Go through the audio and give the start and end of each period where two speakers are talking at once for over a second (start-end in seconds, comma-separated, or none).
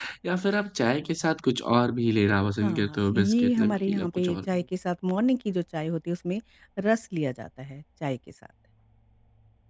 2.6-4.4